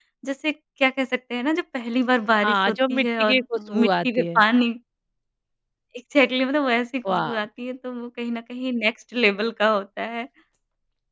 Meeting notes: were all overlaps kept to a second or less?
No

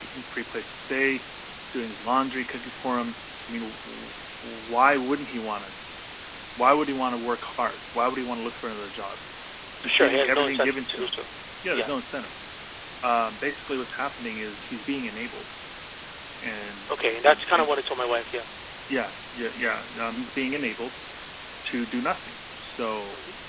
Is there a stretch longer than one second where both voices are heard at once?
Yes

